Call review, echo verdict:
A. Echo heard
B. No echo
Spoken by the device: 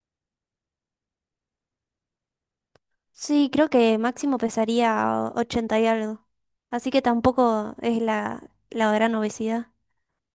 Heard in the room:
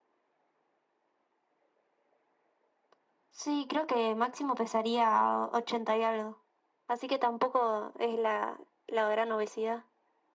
A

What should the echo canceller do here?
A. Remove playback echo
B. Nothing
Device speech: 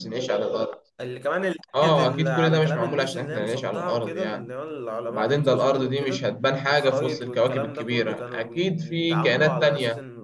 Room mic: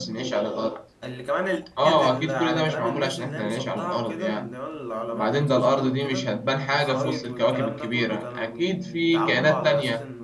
A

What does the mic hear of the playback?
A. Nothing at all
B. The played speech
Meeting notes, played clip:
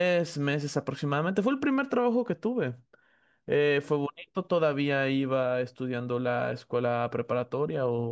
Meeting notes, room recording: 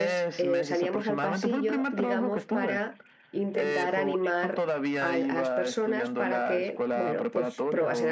B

